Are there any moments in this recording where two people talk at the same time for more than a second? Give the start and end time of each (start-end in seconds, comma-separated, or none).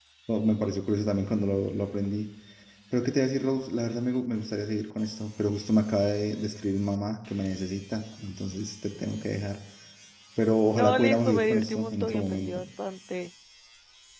10.7-12.5